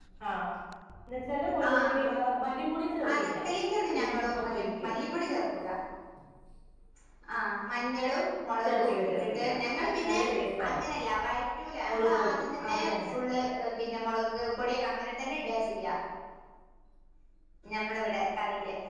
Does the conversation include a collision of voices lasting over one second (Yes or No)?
Yes